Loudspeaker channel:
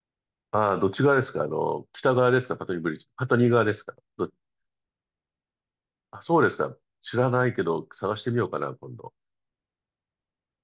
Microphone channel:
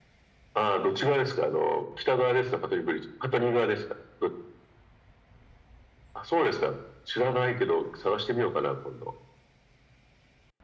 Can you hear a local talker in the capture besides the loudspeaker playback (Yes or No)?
No